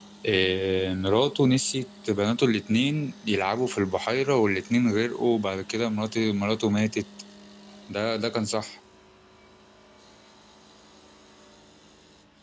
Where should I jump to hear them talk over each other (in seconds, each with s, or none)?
none